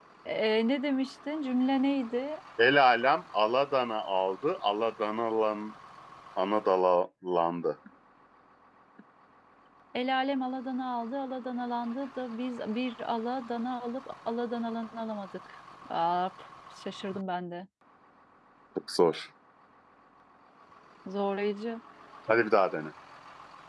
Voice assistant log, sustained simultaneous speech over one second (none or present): none